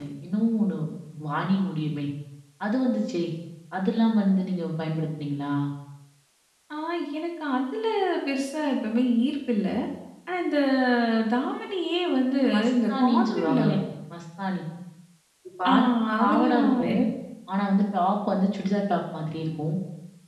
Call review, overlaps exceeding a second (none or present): present